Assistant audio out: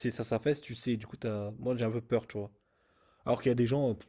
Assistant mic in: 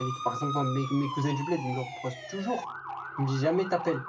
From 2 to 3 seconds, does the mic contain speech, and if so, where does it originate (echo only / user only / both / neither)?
user only